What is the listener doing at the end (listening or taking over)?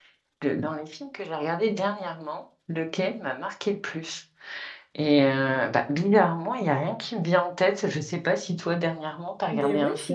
taking over